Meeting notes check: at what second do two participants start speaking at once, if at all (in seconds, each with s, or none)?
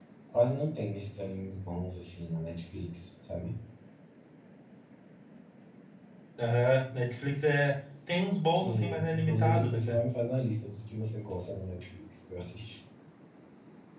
8.4 s